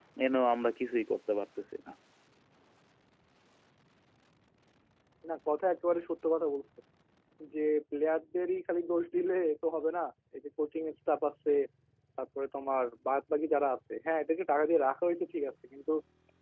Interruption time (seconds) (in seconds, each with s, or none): none